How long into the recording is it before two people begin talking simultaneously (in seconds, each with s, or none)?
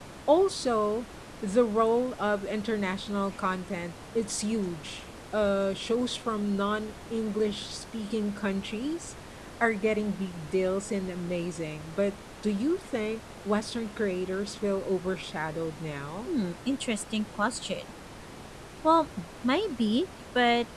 none